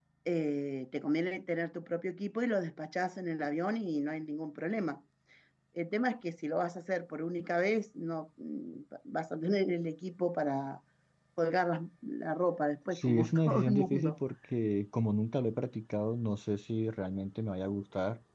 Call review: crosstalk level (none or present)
present